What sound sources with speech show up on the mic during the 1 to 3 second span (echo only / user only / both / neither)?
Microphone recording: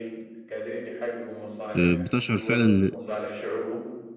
both